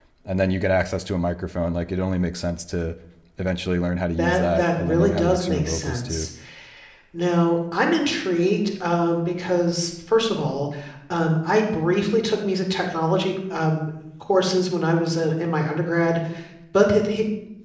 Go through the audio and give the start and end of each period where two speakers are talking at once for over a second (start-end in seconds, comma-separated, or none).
4.2-6.3